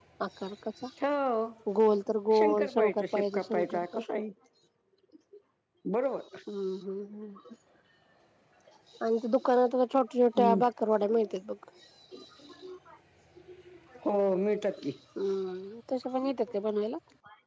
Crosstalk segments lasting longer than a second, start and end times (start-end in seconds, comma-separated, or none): 2.4-4.0